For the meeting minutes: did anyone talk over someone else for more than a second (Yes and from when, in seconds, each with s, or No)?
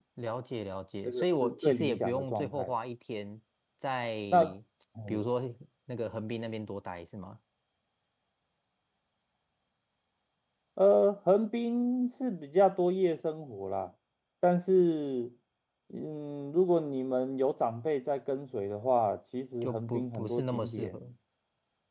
Yes, from 1.1 s